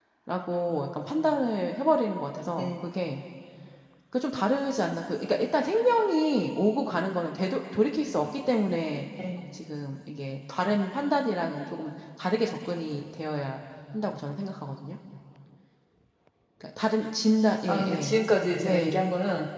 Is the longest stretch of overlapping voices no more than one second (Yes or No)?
Yes